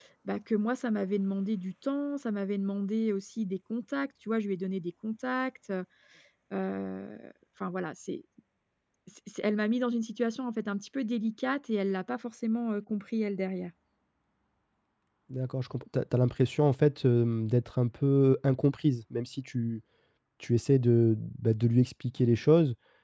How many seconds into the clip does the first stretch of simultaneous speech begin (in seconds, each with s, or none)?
none